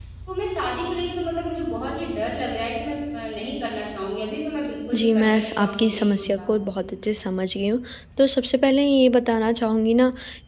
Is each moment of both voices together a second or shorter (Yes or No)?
No